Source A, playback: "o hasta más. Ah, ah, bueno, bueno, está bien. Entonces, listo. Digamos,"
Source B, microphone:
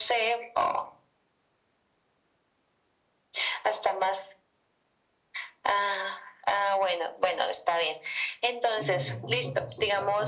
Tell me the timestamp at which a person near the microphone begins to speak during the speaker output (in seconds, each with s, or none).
8.8 s